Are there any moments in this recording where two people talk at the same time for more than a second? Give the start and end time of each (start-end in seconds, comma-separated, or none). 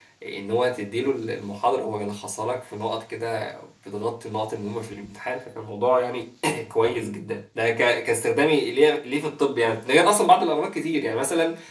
none